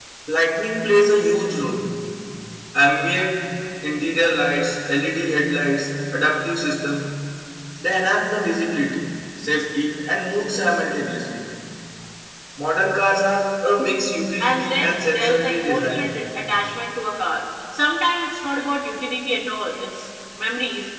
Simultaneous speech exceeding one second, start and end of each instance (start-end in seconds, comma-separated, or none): 14.4-16.2